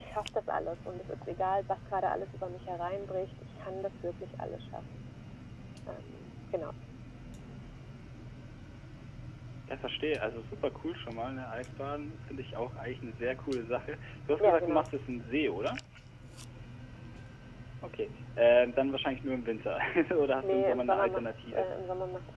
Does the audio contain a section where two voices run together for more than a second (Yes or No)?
Yes